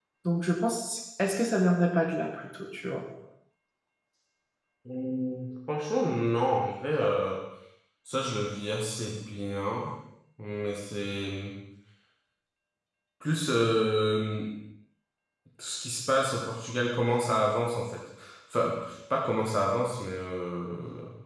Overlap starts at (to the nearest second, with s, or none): none